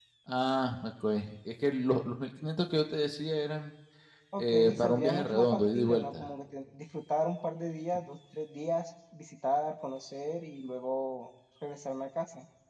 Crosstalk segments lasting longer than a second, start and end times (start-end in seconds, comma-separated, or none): 4.4-6.3